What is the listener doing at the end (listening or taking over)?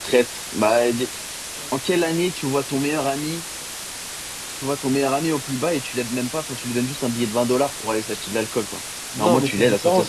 taking over